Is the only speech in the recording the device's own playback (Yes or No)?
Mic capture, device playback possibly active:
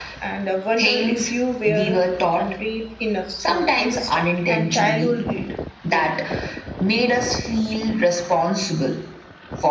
No